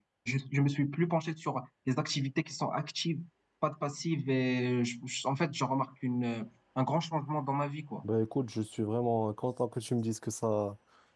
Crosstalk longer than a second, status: none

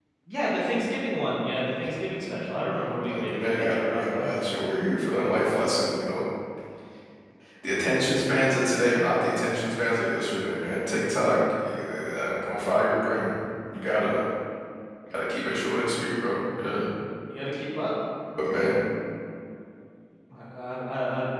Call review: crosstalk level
present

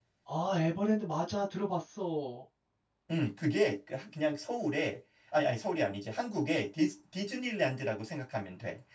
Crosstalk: none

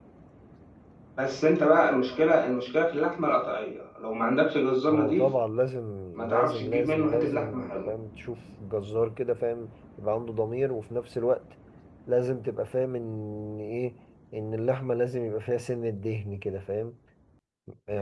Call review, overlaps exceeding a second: present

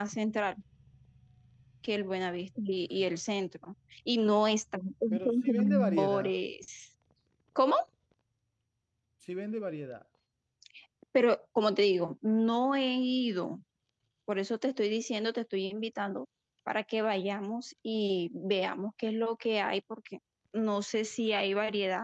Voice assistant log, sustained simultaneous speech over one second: present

